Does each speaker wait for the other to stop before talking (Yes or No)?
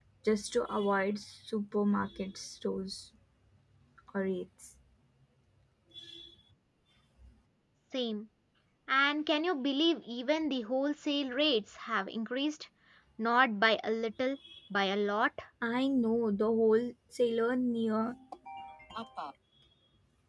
Yes